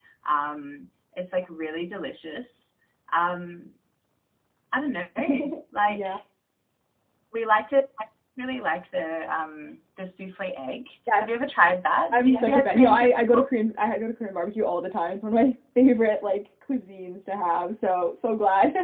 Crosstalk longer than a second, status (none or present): present